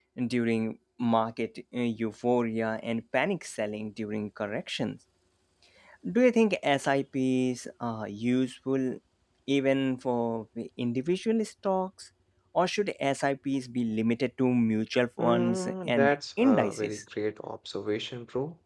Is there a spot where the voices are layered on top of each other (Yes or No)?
Yes